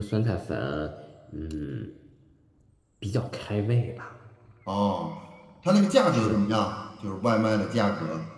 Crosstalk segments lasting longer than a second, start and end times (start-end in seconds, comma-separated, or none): none